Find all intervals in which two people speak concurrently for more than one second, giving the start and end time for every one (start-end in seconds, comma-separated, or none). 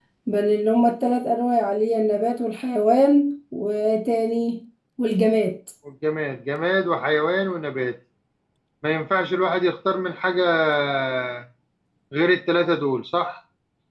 none